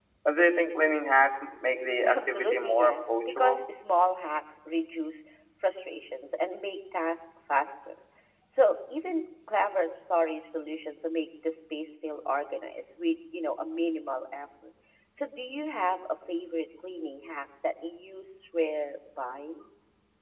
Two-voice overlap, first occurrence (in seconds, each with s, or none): 2.0 s